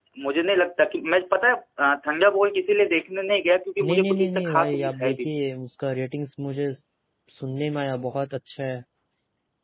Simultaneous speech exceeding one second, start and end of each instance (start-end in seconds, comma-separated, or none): 3.8-5.3